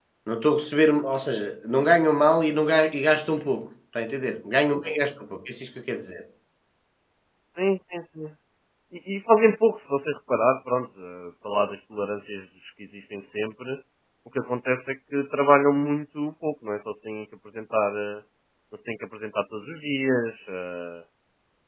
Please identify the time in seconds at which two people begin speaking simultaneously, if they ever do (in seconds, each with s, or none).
none